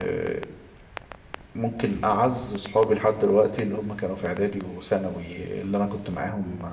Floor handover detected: No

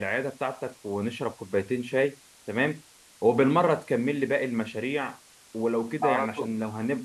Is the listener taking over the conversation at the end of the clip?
No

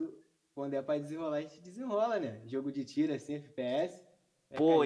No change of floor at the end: No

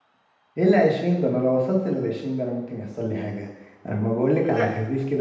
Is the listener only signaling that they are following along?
Yes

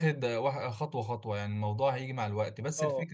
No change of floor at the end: Yes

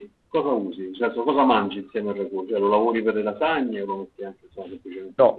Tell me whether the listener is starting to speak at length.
Yes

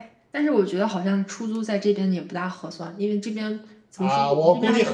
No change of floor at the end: No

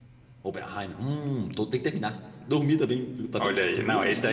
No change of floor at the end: No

